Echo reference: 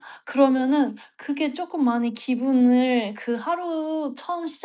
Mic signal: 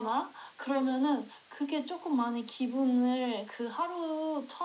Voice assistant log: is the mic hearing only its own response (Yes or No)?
Yes